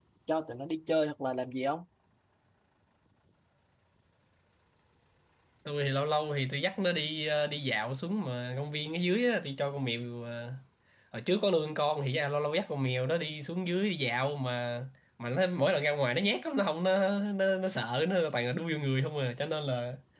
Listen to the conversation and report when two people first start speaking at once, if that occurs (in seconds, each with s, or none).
none